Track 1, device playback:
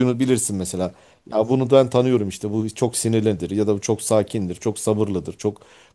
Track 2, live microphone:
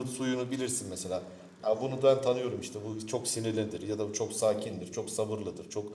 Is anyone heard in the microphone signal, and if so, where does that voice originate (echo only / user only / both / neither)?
echo only